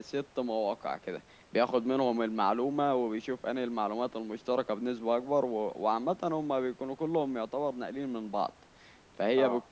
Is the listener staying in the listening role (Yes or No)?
Yes